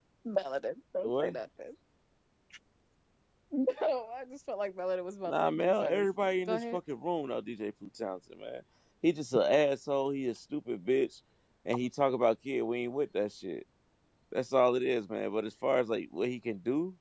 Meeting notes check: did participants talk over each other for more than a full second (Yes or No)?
Yes